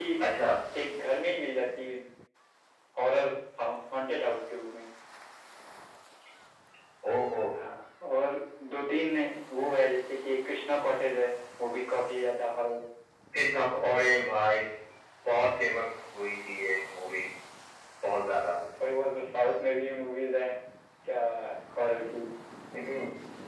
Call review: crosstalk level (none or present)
none